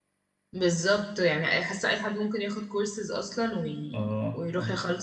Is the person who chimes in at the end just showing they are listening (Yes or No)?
No